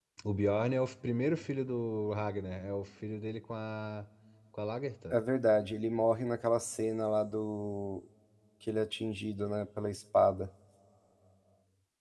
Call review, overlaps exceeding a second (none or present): none